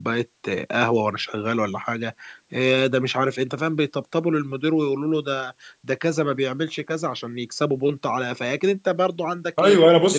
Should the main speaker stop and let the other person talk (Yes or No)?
Yes